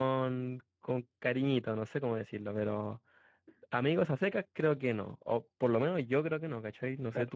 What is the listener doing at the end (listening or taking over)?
taking over